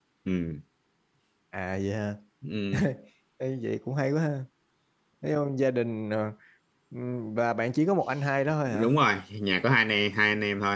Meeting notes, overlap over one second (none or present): none